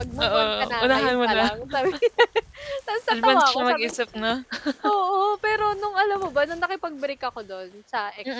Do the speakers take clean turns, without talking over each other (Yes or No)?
No